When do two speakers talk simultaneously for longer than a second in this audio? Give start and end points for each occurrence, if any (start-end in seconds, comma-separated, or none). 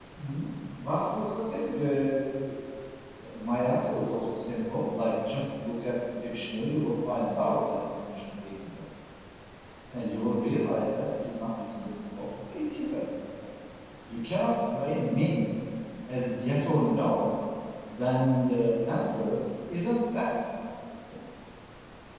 none